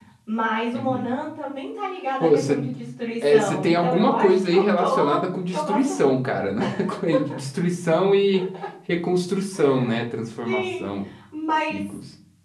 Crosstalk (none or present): present